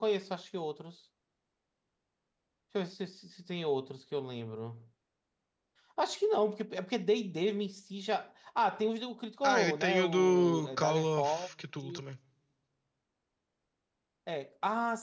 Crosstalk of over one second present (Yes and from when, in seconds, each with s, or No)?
Yes, from 9.4 s